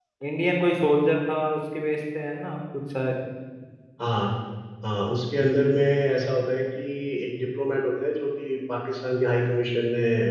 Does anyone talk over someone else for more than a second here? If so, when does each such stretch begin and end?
none

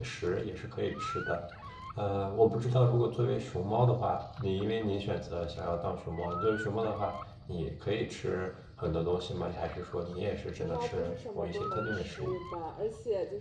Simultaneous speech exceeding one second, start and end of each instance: 10.6-12.4

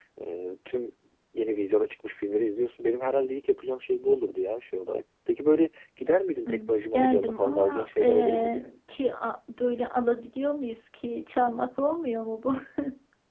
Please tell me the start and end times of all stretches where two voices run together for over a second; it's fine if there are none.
6.5-8.7

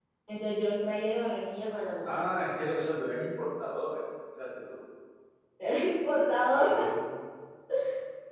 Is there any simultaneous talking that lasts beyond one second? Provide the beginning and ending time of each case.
none

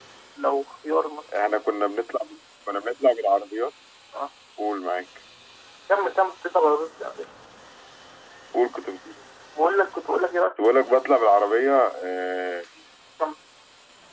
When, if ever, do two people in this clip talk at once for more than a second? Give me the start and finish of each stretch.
none

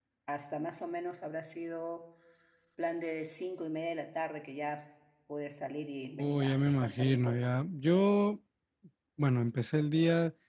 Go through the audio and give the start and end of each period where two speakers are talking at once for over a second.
6.2-7.5

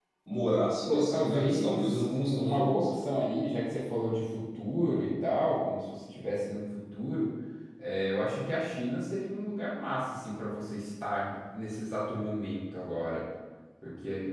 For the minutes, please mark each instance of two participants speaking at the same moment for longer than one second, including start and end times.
0.8-3.1

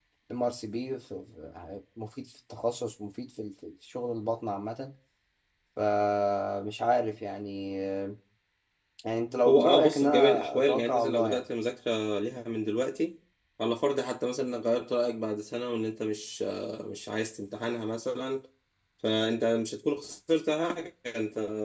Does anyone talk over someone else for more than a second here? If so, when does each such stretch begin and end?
9.5-11.4

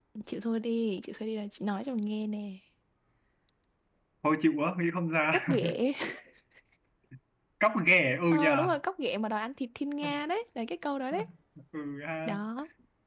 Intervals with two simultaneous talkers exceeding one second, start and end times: none

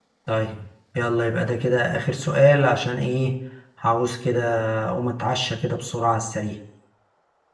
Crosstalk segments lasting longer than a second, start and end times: none

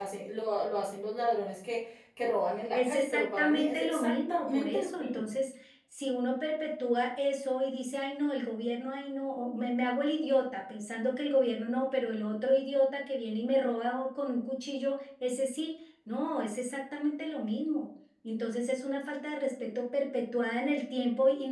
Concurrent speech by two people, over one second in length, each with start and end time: 2.7-5.2

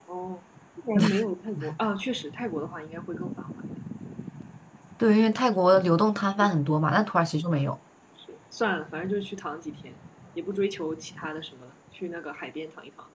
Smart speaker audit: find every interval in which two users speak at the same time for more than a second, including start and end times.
none

